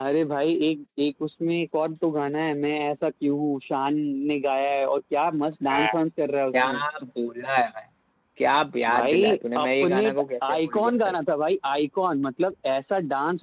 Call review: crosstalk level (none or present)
present